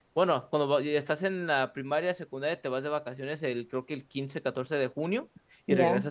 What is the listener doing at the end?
listening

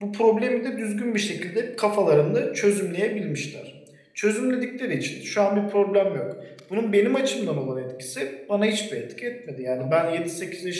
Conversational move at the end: listening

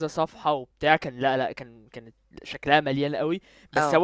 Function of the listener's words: listening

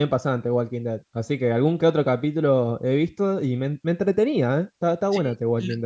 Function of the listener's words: taking over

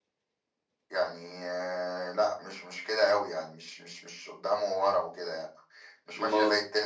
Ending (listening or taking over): listening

